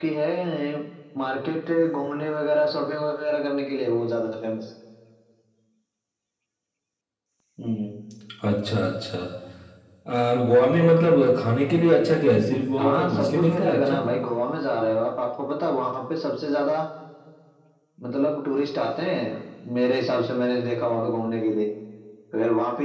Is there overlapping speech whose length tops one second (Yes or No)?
Yes